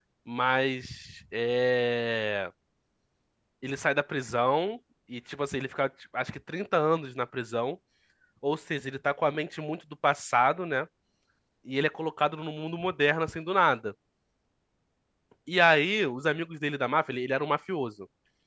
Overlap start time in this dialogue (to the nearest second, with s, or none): none